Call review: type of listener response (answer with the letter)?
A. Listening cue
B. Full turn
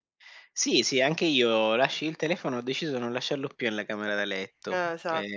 A